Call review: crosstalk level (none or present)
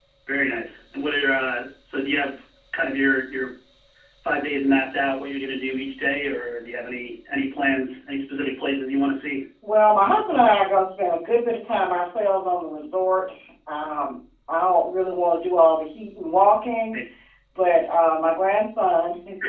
none